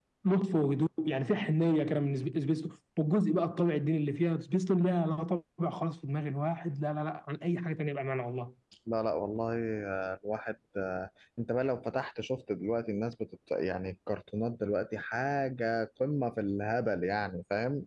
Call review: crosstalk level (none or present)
none